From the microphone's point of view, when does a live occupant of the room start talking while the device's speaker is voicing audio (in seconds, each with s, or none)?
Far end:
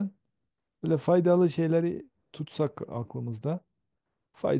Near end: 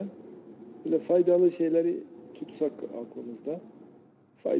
none